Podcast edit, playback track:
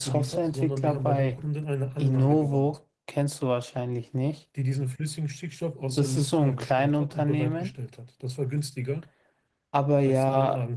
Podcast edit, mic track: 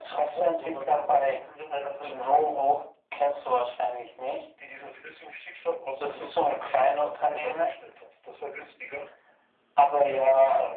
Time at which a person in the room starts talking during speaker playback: none

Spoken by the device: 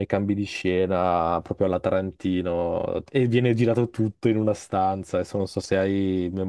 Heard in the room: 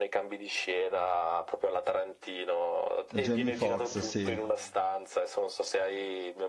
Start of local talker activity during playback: 3.2 s

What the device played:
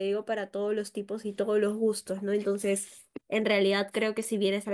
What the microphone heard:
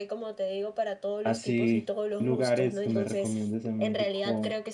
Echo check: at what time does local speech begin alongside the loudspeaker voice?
1.2 s

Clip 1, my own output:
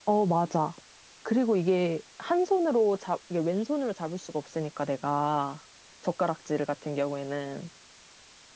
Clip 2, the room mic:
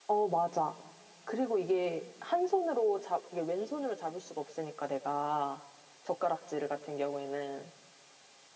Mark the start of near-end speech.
none

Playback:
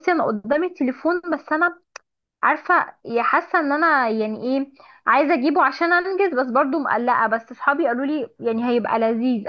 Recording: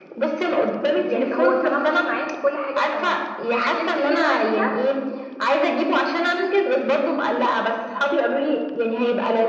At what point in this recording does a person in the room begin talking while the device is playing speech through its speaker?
1.1 s

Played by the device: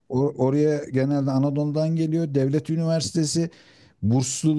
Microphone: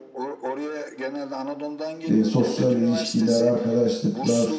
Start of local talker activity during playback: 2.1 s

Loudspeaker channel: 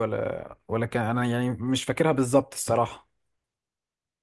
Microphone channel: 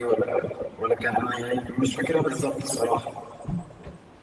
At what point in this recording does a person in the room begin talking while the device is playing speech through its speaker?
none

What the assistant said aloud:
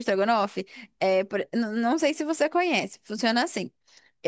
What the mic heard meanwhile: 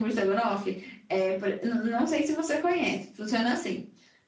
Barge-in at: none

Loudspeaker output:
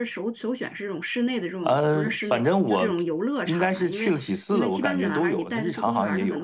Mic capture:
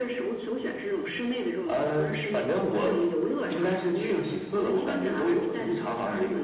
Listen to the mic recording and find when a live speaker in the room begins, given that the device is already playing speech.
none

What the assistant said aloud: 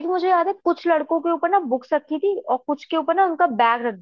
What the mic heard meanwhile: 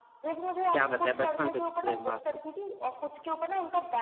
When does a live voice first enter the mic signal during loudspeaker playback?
0.7 s

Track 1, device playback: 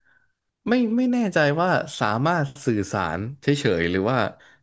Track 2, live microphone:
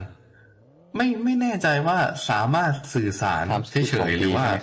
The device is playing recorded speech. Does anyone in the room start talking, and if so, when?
3.4 s

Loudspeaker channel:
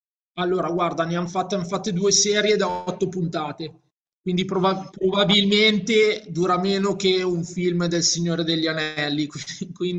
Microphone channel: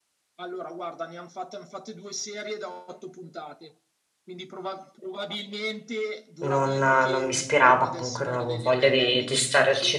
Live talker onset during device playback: 6.4 s

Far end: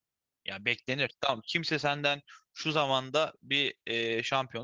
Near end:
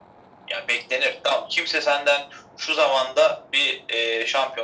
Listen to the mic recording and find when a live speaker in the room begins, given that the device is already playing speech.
none

